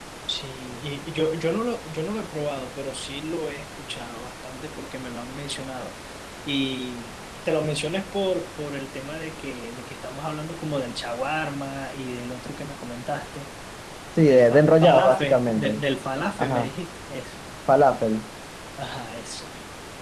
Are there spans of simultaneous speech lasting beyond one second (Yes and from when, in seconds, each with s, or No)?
Yes, from 14.3 s